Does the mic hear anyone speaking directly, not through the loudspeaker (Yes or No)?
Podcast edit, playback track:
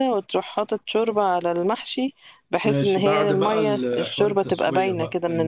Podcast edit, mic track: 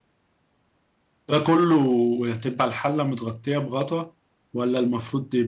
Yes